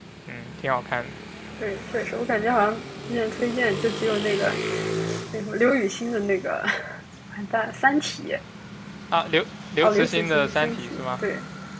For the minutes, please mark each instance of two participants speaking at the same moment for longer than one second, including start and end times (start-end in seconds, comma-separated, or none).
9.8-11.2